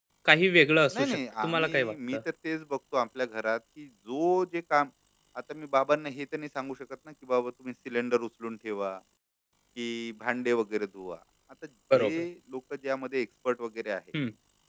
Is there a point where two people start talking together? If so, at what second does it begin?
1 s

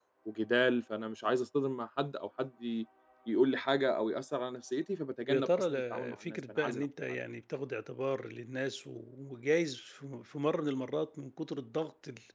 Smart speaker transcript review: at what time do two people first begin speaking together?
5 s

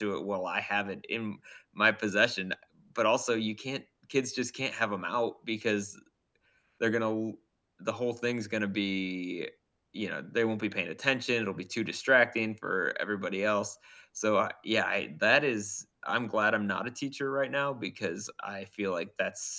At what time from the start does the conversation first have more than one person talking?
none

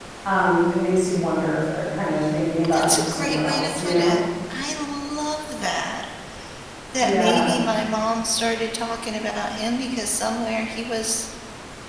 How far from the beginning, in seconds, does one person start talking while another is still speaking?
3 s

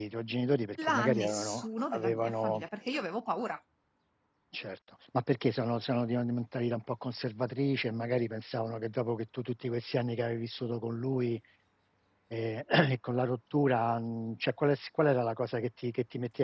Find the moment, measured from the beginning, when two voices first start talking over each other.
1 s

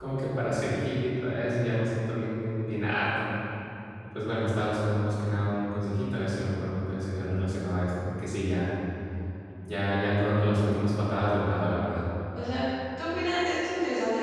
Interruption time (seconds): none

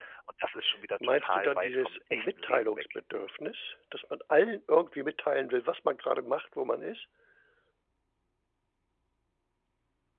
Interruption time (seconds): 1 s

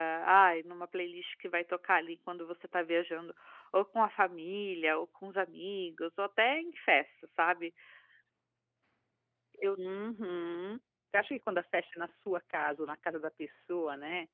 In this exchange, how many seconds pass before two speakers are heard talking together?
none

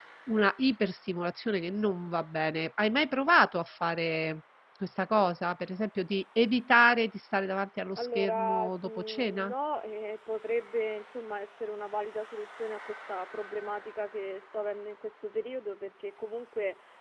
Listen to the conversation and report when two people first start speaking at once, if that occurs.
8 s

